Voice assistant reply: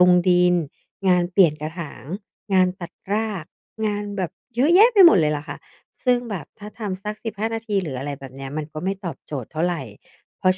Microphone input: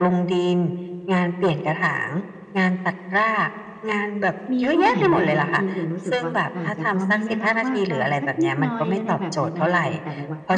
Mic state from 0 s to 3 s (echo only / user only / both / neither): echo only